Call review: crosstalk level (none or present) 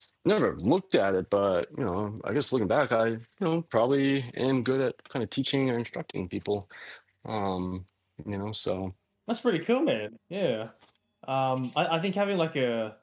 none